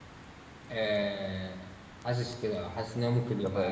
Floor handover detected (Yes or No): Yes